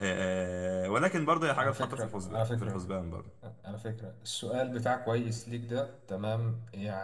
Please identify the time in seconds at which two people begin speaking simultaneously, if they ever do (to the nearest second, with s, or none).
2 s